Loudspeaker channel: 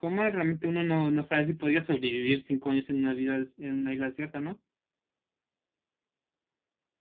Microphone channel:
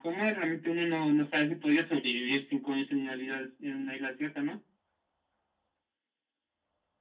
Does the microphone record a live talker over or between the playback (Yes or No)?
No